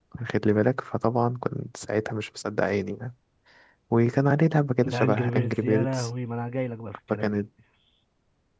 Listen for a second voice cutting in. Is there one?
Yes, from 4.8 s

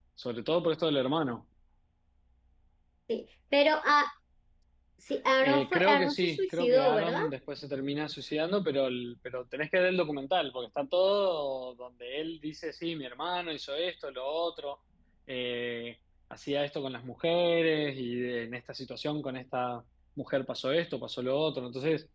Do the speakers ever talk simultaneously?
Yes, from 5.4 s

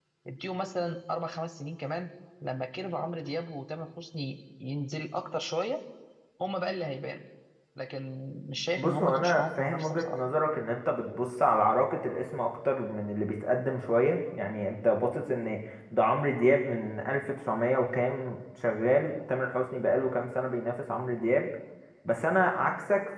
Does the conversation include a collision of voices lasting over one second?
Yes, from 8.8 s

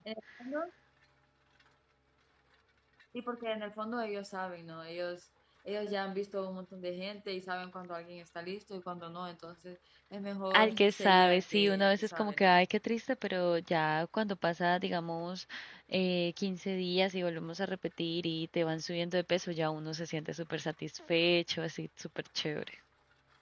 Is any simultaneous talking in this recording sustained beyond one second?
Yes, from 10.5 s

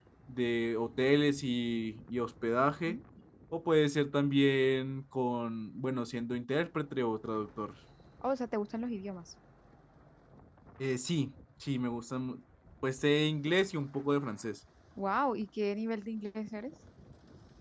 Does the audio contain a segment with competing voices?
No

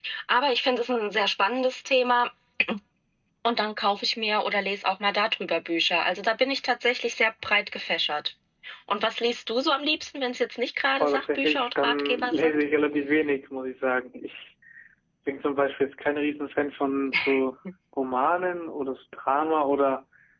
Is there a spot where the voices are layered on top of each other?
Yes, from 11.0 s

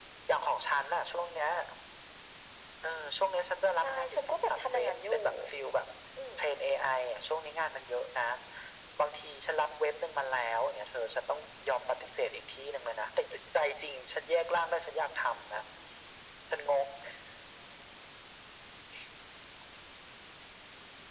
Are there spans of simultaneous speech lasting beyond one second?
Yes, from 3.8 s

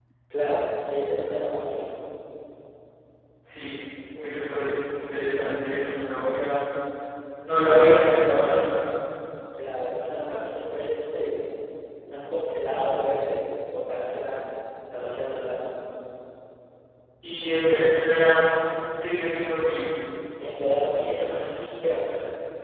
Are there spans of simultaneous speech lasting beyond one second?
No

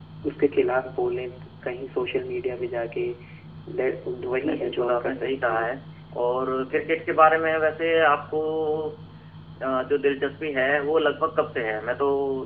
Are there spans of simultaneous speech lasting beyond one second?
Yes, from 4.4 s

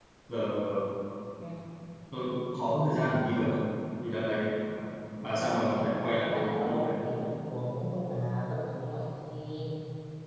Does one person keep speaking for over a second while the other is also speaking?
Yes, from 5.3 s

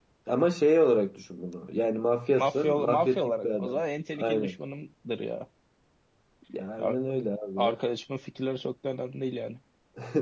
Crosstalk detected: Yes, from 2.4 s

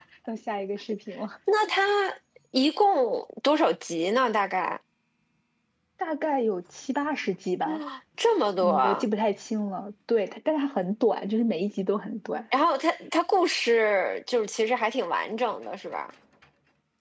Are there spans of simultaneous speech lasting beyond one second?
No

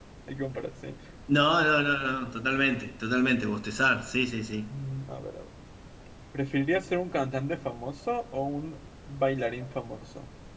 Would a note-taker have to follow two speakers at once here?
No

